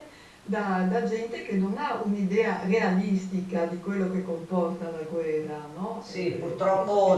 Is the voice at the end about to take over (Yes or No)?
Yes